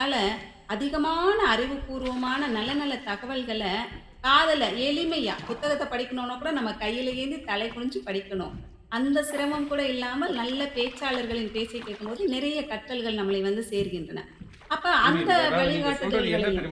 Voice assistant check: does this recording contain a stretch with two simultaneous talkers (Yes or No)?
Yes